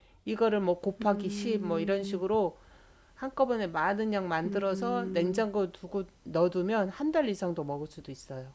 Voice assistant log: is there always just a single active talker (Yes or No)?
No